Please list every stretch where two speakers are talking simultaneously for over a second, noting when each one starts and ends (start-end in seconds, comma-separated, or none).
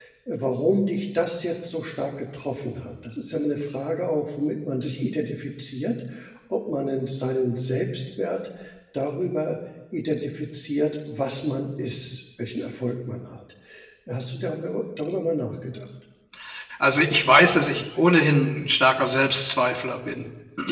none